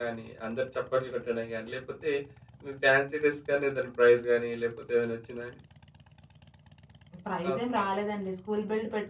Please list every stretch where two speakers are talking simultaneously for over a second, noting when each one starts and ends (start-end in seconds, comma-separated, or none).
none